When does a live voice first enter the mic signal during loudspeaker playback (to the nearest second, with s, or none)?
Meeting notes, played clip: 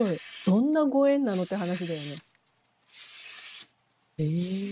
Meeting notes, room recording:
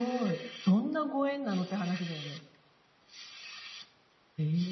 none